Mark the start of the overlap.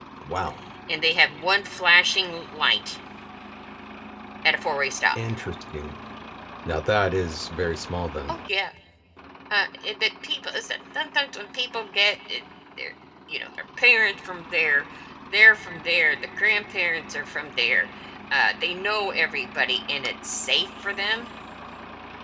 none

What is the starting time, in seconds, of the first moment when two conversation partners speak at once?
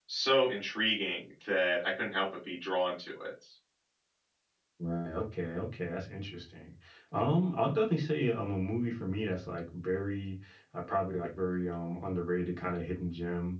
none

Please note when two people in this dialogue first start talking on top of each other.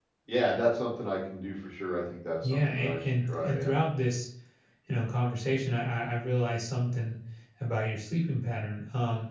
2 s

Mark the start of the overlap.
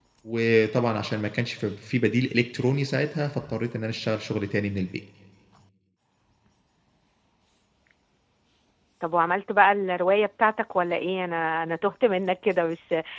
none

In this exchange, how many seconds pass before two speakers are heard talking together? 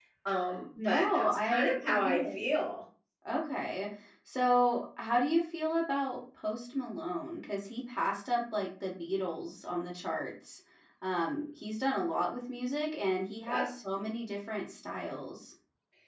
1 s

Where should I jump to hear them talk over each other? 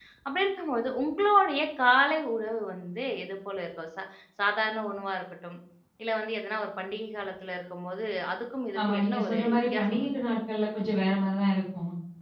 9 s

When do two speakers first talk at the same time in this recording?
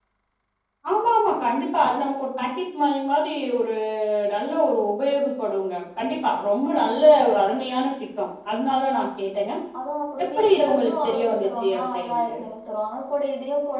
10 s

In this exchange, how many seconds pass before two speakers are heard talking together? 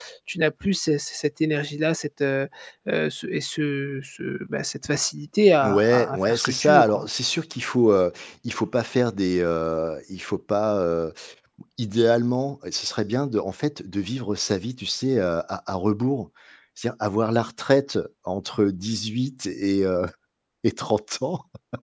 6 s

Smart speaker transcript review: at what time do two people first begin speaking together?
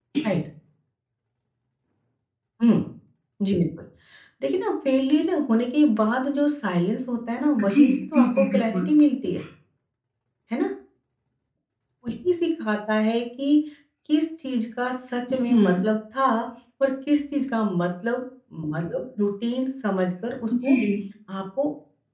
8 s

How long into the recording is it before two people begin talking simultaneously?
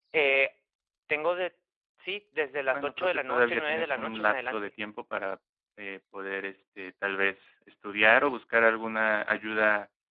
3 s

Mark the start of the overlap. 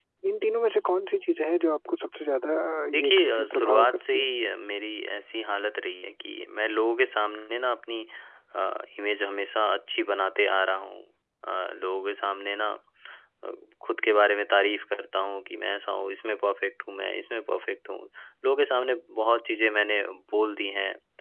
3 s

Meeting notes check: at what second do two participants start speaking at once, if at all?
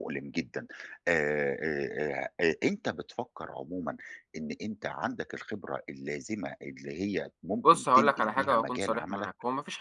8 s

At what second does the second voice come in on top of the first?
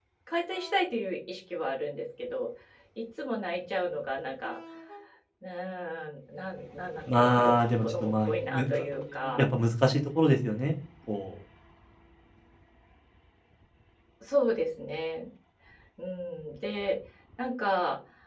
7 s

